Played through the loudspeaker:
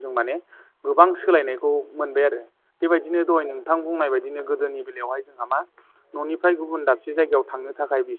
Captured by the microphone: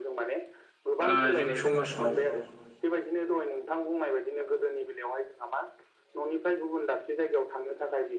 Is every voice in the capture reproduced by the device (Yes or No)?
No